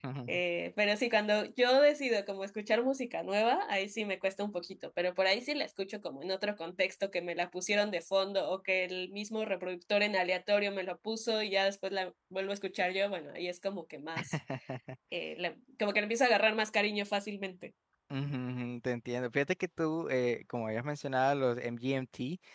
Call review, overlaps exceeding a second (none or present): none